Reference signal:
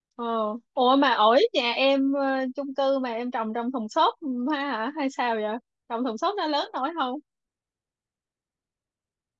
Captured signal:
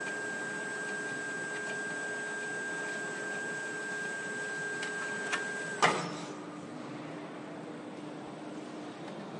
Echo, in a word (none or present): none